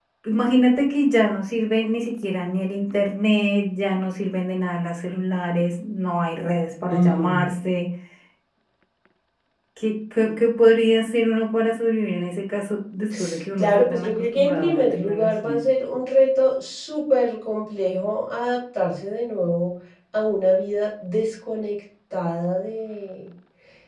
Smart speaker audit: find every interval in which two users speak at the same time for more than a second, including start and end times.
13.6-15.6

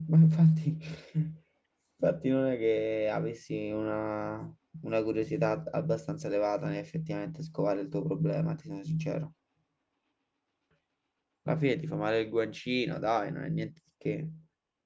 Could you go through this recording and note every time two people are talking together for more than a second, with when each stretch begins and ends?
none

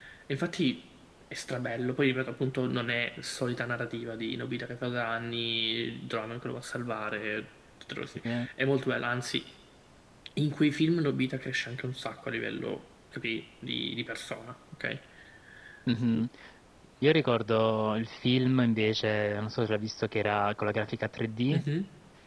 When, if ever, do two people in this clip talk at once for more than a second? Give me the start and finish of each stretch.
none

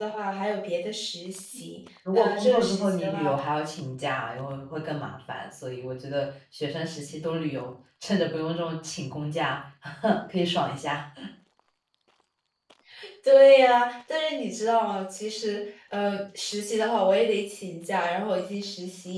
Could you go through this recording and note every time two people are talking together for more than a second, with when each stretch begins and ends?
2.1-3.3

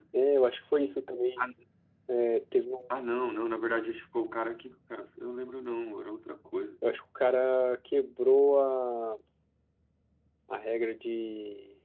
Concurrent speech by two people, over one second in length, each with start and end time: none

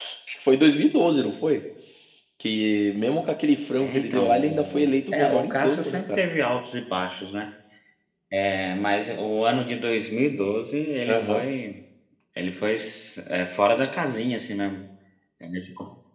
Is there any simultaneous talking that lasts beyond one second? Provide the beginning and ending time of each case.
3.8-6.2

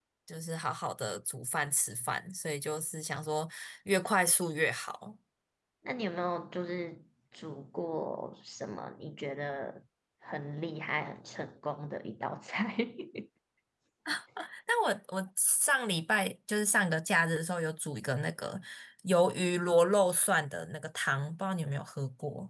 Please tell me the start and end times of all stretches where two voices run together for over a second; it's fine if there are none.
none

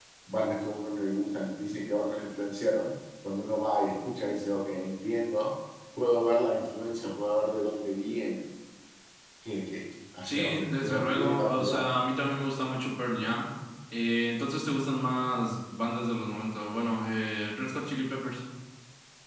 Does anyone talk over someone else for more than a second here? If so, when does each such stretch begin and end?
10.2-11.9

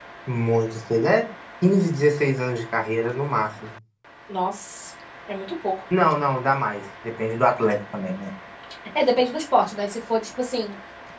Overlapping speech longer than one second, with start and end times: none

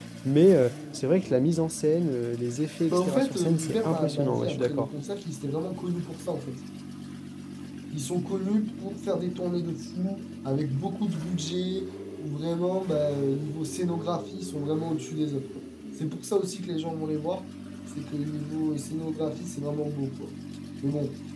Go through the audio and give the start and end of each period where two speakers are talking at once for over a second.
2.9-4.9

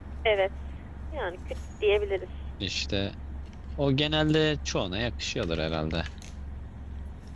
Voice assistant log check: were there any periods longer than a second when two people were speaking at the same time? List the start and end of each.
none

